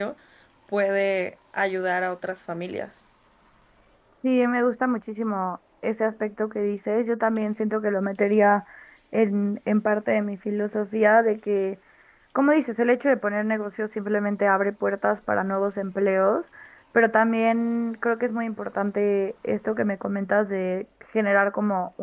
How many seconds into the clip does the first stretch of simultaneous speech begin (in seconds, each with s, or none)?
none